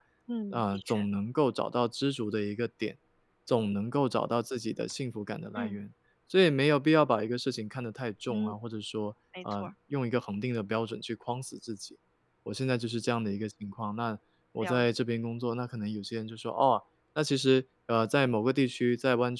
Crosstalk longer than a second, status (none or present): none